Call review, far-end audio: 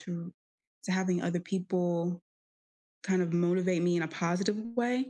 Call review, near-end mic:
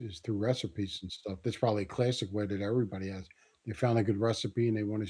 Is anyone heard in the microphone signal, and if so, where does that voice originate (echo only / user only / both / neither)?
user only